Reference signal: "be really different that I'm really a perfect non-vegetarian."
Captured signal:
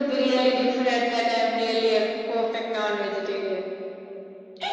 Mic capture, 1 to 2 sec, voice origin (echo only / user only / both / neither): echo only